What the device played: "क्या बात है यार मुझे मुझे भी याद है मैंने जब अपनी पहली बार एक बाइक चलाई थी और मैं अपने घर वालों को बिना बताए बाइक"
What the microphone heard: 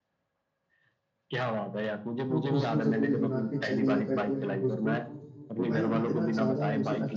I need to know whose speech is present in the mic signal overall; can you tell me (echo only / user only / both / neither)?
both